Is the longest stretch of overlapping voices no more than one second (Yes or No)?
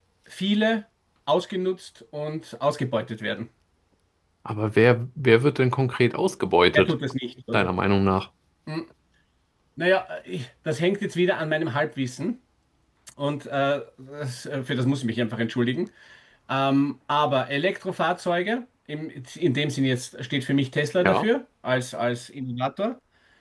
Yes